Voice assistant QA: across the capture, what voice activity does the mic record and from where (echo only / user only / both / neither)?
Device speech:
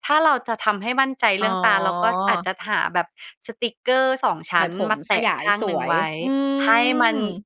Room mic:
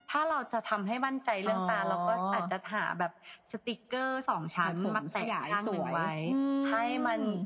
echo only